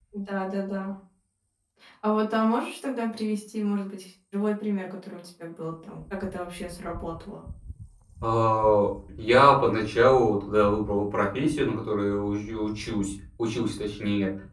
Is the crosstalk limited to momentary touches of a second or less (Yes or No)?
Yes